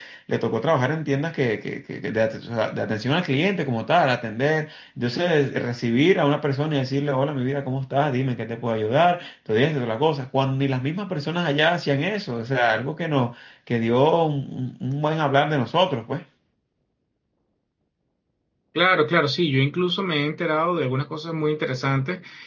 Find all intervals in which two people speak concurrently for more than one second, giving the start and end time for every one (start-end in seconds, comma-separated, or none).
none